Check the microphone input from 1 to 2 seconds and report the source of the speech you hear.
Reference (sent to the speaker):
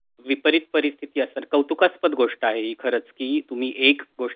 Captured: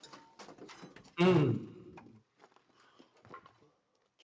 user only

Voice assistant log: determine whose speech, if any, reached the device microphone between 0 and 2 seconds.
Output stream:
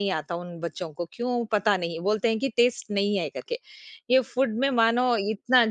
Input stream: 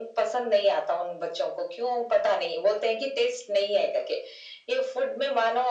echo only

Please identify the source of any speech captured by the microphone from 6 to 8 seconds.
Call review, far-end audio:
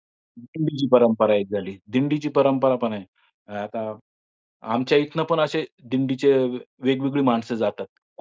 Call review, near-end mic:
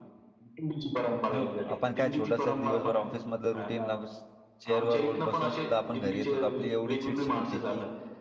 both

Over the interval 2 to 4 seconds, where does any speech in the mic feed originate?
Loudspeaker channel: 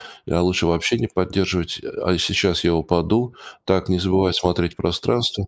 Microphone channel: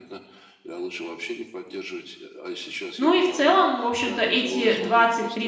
both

